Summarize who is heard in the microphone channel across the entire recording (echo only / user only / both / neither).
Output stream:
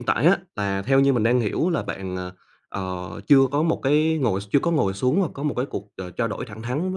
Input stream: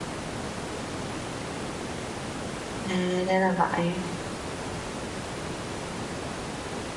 user only